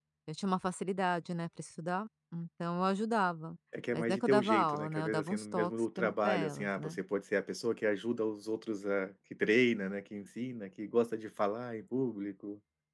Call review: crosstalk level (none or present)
present